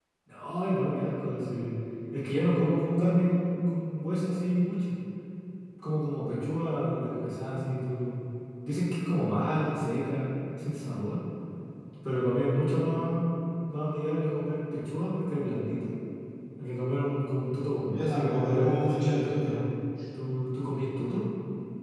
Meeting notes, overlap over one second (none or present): present